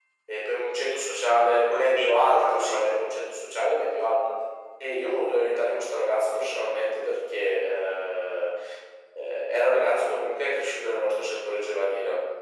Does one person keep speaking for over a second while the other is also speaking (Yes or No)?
Yes